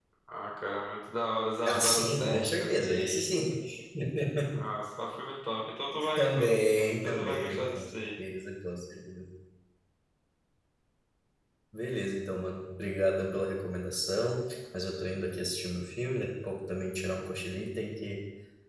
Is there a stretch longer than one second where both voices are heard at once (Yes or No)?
Yes